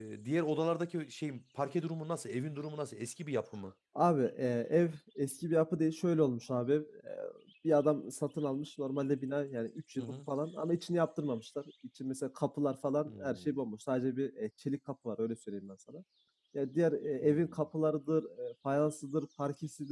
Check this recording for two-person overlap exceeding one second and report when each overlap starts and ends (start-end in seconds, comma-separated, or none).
none